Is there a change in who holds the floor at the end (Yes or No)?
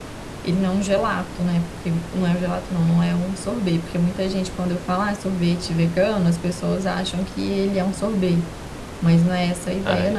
Yes